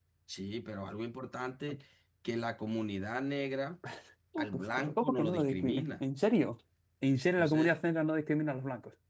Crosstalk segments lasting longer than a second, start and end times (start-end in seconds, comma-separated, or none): 4.4-6.0